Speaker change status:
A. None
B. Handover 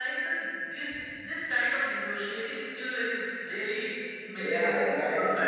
B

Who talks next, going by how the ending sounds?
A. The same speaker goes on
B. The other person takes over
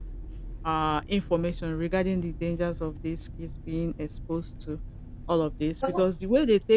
A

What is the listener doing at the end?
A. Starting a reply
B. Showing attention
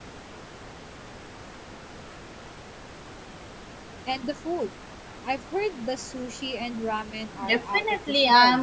A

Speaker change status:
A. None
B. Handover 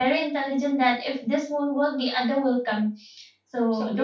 A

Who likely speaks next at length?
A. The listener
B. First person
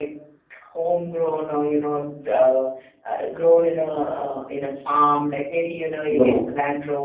B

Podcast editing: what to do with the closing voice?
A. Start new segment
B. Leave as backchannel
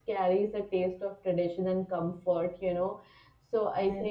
B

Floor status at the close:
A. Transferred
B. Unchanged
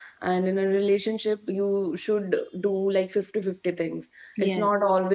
B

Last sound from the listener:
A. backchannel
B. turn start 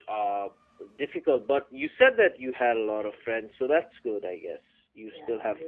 B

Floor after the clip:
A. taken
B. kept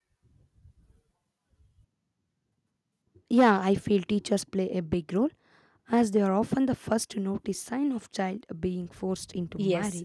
A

